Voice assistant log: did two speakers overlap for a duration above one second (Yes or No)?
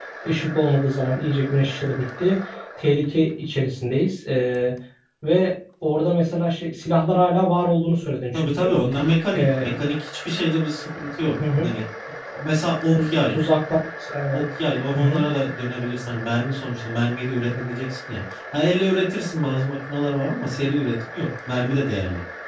No